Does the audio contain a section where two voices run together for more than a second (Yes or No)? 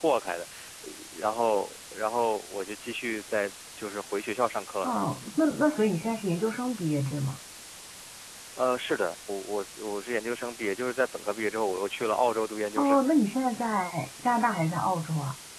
No